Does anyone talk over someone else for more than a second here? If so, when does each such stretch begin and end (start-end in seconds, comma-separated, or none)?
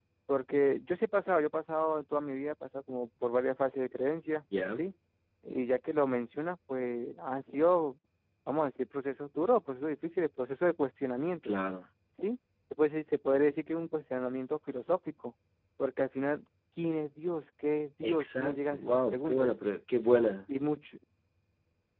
18.0-19.5